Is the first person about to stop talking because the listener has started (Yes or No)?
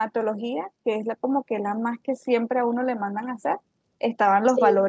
No